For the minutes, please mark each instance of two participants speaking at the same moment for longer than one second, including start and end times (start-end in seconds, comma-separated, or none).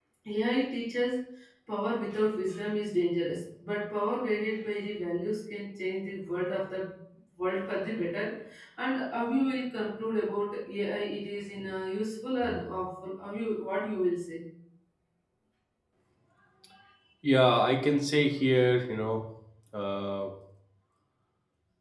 none